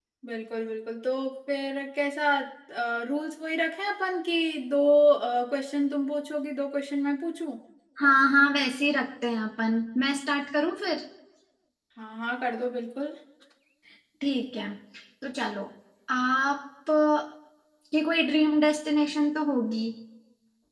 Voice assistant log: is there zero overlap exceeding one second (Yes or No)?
Yes